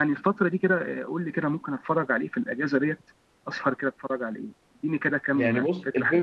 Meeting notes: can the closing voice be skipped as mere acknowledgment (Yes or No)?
No